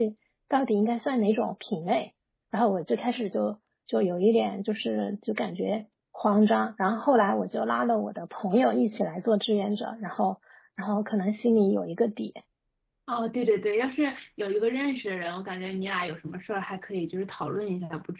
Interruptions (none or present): none